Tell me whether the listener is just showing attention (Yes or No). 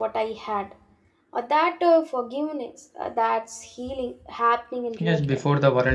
No